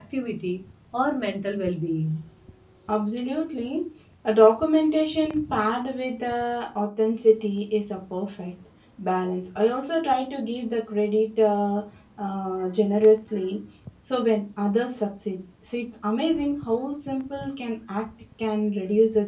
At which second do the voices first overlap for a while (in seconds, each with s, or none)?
none